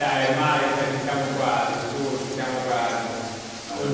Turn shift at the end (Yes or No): No